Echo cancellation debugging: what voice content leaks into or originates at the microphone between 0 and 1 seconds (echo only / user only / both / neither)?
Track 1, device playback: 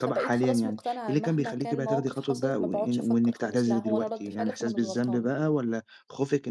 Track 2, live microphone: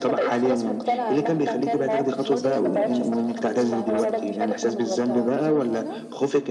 echo only